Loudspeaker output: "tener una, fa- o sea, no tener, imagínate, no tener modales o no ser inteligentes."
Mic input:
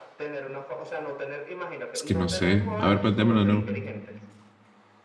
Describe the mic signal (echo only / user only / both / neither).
both